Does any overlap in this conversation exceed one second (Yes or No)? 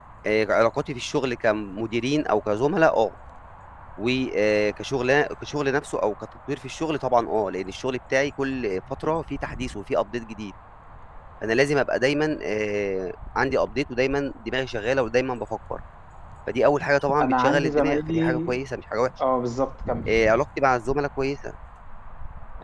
Yes